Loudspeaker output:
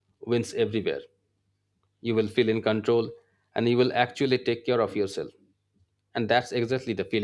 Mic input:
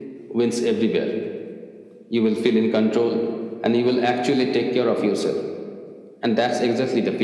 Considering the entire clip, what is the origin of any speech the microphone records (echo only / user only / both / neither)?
echo only